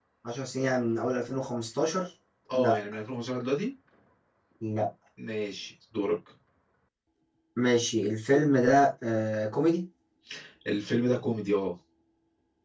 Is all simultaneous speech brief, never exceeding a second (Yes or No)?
Yes